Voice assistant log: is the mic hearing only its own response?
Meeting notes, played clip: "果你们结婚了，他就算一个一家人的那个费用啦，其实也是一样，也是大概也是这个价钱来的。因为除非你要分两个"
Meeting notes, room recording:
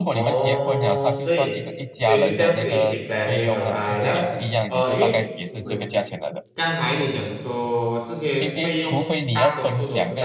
No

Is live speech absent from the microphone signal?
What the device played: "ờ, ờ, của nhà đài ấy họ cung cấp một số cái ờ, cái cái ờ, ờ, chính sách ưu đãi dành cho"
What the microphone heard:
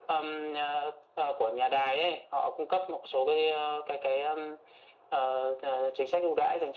Yes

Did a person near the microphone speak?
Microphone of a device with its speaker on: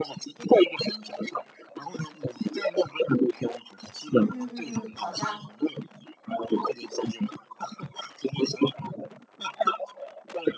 Yes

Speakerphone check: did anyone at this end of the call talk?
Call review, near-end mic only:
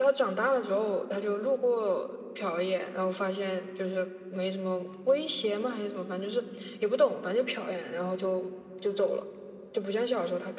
No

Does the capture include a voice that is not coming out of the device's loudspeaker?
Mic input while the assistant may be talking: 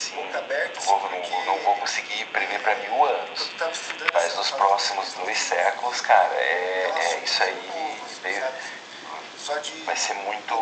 No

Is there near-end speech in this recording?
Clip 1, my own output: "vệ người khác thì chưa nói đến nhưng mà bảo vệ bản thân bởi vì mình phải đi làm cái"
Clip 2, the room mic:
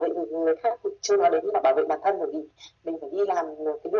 No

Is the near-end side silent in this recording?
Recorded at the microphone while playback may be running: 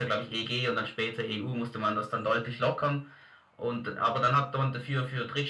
Yes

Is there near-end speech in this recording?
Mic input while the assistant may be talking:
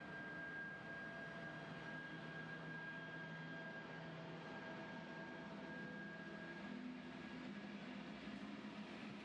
No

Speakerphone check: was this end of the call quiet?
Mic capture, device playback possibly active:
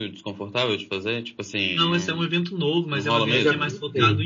No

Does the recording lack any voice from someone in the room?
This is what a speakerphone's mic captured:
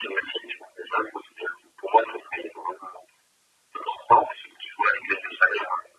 Yes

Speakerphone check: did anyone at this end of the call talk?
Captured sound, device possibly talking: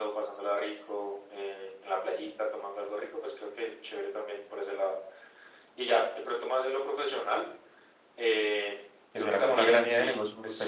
Yes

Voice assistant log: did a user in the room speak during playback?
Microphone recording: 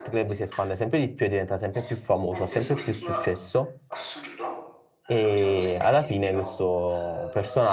Yes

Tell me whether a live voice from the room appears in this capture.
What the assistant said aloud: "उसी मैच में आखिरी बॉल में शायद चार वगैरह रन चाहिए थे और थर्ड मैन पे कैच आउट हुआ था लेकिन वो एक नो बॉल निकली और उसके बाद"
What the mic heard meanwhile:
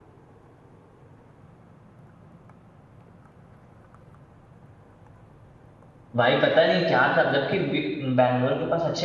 Yes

